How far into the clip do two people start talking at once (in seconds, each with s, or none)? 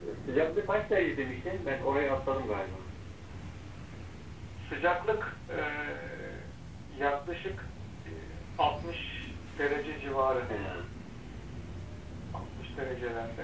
none